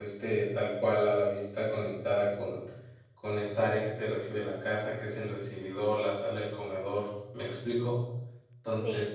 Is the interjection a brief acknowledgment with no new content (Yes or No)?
No